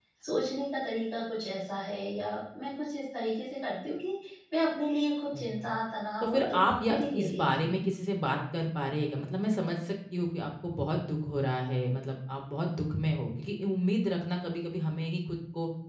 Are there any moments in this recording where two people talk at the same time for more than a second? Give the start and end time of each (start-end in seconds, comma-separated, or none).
6.2-7.8